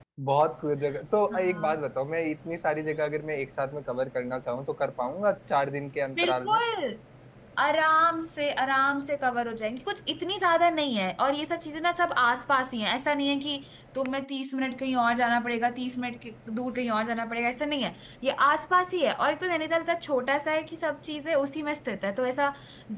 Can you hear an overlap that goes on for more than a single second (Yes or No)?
No